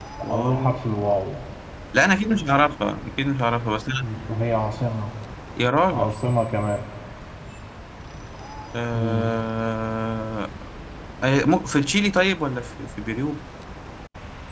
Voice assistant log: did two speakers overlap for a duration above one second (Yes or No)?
No